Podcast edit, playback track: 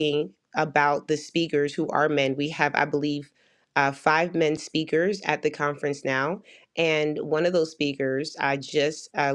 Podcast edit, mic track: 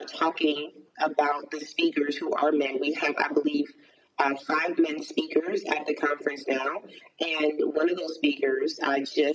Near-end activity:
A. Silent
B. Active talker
A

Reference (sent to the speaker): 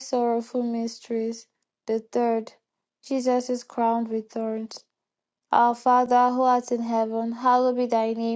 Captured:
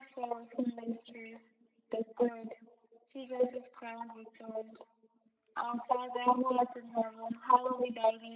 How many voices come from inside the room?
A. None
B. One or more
A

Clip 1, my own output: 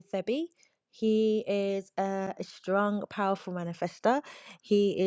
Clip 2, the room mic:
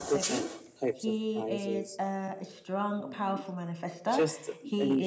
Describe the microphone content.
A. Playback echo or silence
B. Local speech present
B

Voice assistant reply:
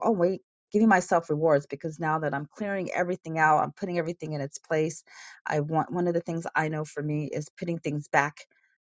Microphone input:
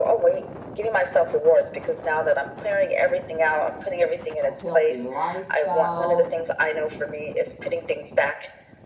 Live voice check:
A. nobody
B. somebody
B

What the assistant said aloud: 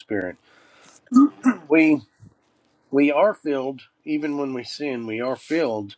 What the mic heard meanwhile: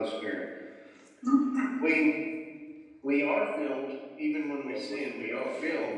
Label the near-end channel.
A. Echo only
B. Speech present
B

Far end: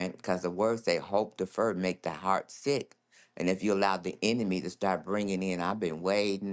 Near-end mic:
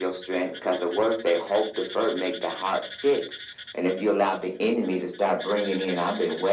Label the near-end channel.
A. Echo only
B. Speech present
A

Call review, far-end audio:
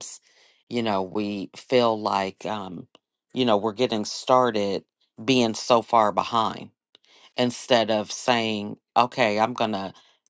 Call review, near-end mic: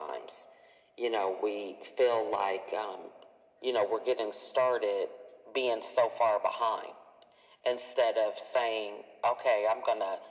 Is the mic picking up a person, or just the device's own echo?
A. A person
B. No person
B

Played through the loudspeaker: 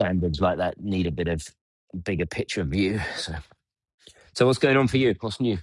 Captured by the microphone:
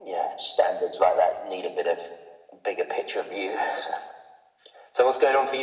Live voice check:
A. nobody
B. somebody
A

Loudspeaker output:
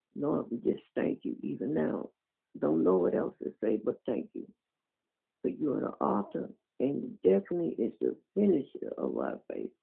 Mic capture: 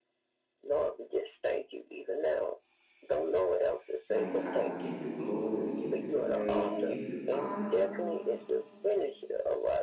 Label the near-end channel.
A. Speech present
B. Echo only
A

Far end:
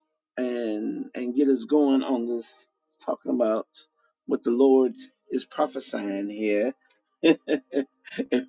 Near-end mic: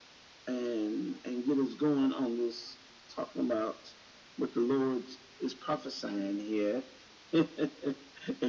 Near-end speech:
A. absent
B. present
A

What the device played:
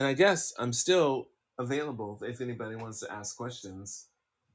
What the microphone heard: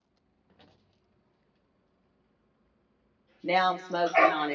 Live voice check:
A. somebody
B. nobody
A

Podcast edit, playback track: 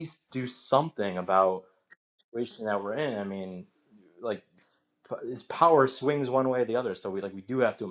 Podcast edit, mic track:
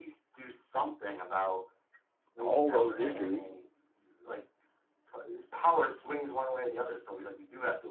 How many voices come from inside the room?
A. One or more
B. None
A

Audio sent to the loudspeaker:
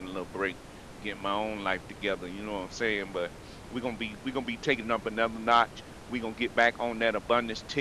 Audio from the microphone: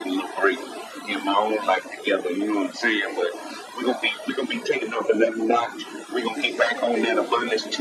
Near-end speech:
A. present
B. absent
A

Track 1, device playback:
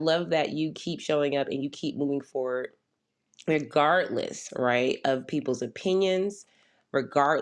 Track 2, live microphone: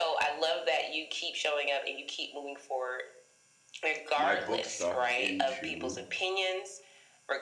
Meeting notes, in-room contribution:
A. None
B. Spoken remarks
B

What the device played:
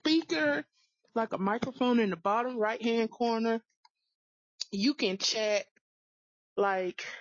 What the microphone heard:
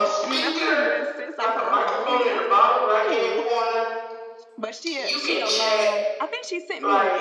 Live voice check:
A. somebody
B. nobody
A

